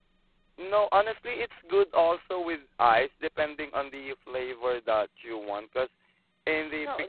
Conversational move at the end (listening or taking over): taking over